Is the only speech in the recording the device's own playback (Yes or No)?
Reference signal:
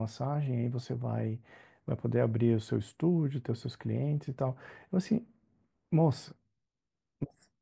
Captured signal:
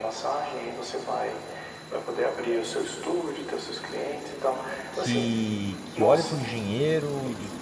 No